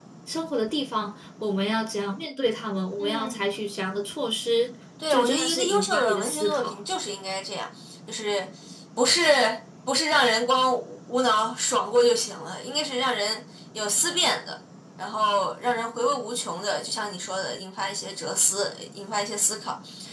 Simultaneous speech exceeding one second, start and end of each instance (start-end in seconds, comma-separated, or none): 5.1-6.8